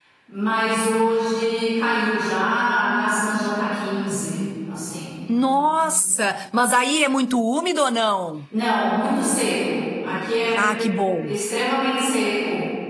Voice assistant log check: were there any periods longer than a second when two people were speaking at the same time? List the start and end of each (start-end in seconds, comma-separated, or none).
none